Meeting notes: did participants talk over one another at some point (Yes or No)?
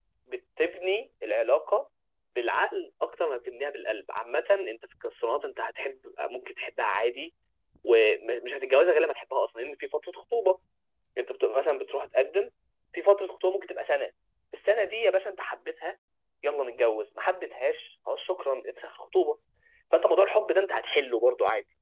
No